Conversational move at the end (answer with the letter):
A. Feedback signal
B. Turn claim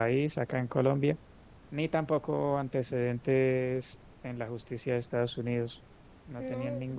A